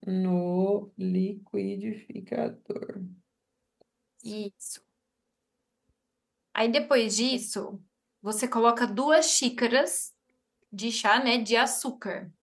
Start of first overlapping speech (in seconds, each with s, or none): none